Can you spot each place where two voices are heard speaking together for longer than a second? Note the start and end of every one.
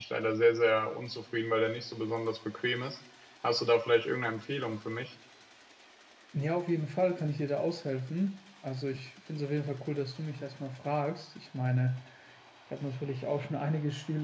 none

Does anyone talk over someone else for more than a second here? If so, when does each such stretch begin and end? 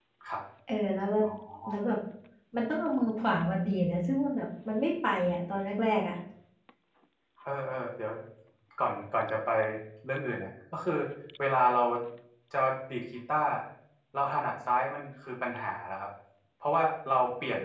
none

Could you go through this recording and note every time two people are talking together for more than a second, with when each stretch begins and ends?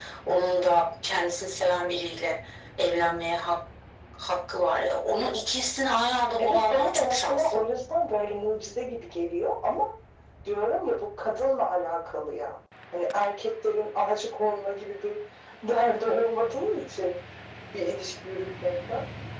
6.4-7.6

